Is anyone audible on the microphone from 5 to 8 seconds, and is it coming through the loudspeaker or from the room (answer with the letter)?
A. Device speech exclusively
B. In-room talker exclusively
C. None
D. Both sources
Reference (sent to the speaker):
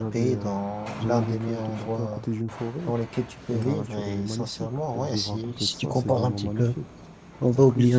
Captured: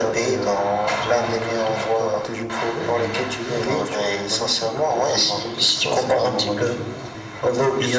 D